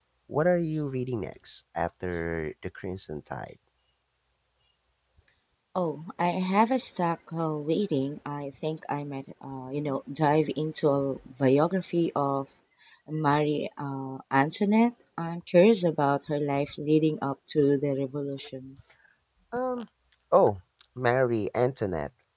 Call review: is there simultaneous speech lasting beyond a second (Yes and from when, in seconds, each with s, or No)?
No